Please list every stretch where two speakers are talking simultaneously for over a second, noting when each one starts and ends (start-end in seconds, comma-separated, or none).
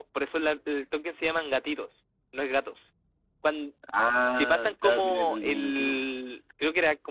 4.3-6.0